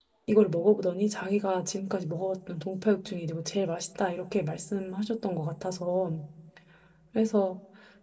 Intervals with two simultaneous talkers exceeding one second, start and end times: none

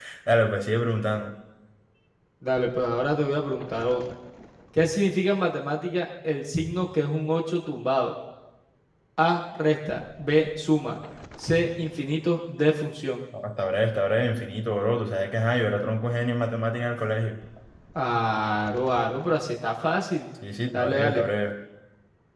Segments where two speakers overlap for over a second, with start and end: none

